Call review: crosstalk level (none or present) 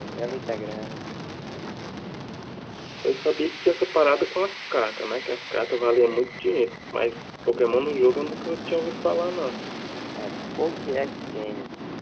none